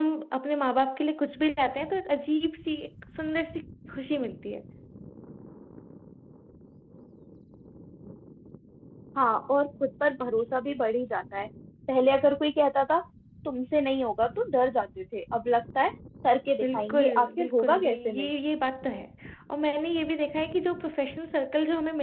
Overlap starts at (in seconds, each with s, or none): 16.6 s